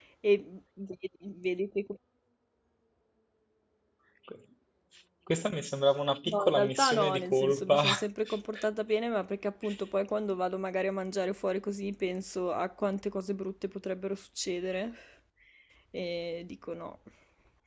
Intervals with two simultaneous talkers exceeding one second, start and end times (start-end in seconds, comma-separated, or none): 6.2-7.8